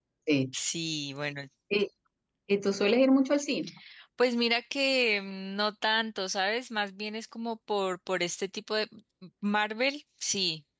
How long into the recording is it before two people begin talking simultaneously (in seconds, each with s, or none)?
none